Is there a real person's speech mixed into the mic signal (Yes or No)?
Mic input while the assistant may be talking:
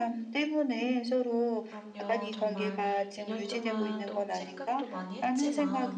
Yes